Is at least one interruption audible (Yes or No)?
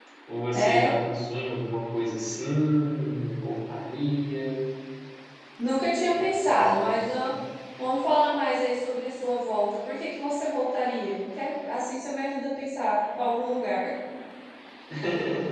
Yes